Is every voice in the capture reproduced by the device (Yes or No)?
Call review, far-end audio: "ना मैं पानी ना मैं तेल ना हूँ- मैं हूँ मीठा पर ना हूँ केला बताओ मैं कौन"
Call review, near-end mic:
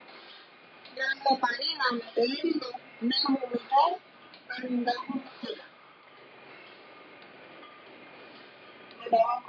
Yes